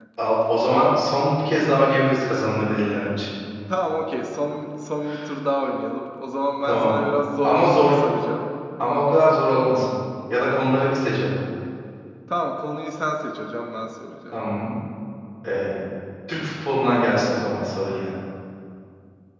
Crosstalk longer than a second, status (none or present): none